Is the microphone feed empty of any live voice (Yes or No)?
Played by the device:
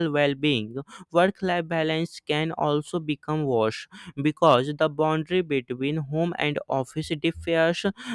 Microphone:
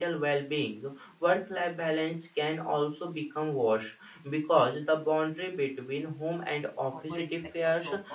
No